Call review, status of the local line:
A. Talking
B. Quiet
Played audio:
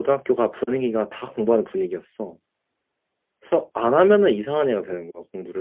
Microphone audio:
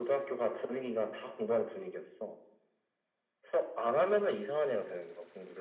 B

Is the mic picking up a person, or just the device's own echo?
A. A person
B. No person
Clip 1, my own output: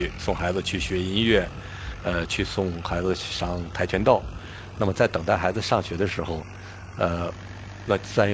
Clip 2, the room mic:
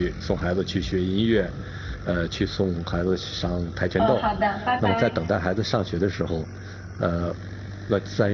A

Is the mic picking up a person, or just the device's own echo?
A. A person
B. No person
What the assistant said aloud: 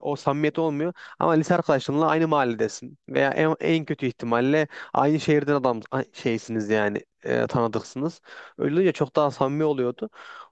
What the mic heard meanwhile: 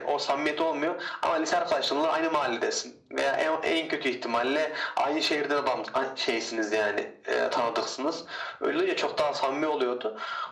B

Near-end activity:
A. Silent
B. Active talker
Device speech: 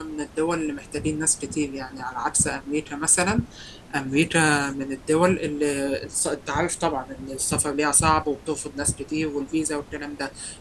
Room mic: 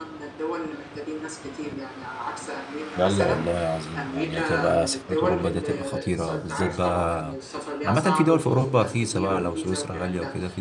B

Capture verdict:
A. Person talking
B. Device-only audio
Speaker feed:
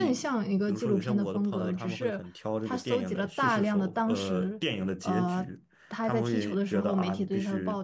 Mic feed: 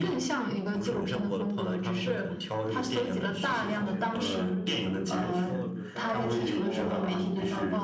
A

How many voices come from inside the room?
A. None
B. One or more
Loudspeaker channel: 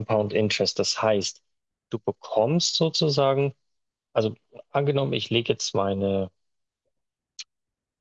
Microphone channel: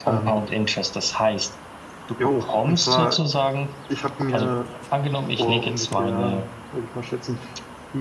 B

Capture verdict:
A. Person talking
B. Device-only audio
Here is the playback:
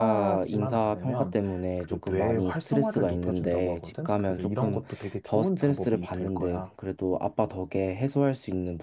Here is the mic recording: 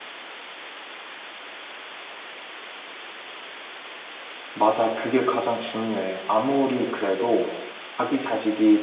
A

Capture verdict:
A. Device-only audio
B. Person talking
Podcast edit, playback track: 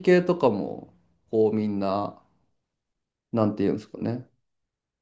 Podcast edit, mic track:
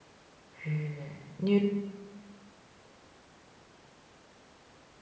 B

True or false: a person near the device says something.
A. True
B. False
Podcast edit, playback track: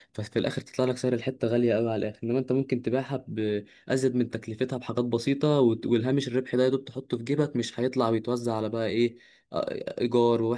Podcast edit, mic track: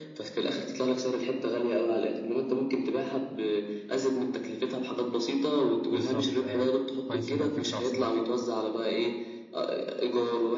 A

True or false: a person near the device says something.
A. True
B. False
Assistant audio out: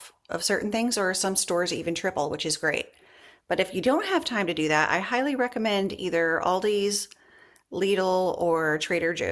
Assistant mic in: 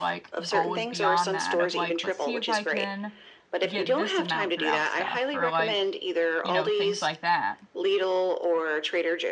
A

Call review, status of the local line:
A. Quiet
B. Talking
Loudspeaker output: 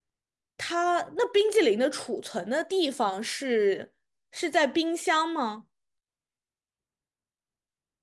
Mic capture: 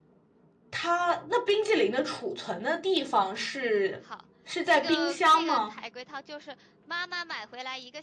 B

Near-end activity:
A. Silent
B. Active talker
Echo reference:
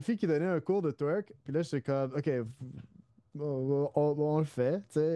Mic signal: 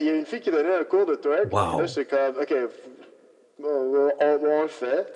B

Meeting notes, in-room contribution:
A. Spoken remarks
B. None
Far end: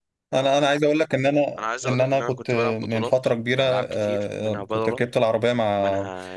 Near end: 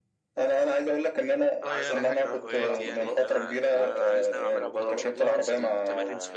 A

